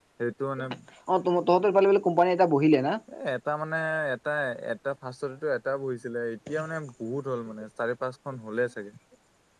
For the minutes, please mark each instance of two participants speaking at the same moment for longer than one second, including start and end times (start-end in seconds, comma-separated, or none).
none